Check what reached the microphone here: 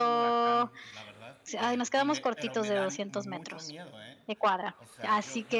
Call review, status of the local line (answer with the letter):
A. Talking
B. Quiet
A